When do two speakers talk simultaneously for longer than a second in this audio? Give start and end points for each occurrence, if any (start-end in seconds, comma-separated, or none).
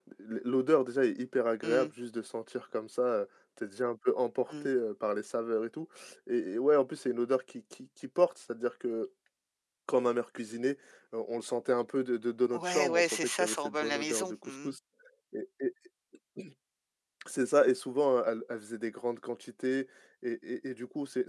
12.6-14.8